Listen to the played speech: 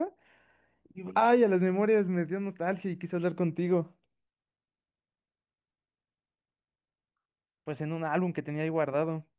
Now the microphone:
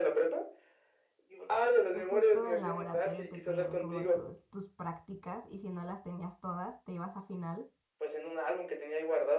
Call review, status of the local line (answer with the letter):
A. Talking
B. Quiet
A